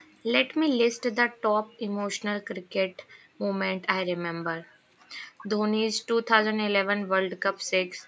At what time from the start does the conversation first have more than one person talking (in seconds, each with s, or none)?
none